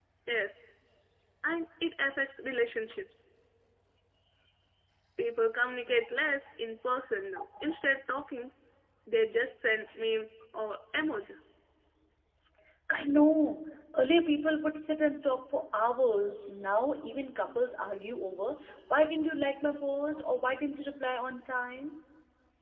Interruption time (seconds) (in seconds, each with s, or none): none